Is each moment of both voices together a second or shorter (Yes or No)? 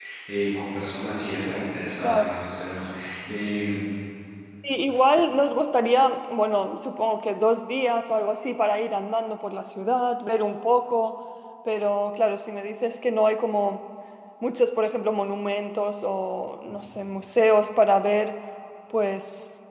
Yes